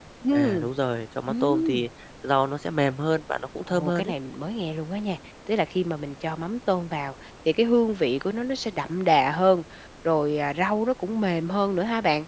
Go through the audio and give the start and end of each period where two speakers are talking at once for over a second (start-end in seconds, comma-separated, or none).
none